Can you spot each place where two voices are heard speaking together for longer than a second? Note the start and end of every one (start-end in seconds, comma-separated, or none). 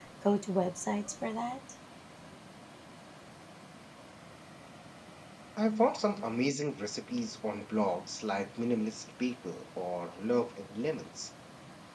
none